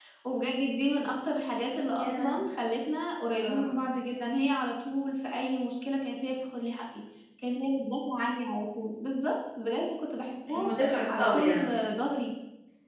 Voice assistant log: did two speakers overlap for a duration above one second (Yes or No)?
No